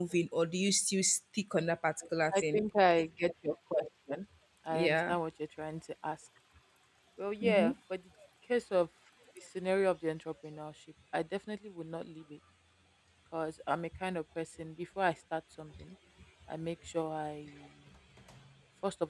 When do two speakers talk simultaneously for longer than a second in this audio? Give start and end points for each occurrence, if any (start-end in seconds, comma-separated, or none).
none